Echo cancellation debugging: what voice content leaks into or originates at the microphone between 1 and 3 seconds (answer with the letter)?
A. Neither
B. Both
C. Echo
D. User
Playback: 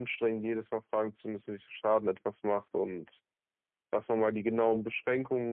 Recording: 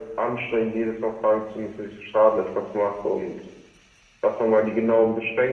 C